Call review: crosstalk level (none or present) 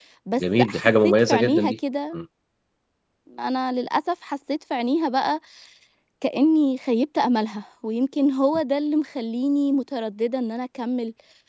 present